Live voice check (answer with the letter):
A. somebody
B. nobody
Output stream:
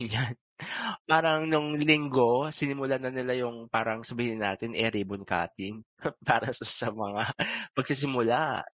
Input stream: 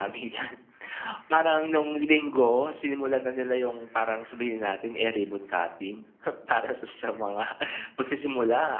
B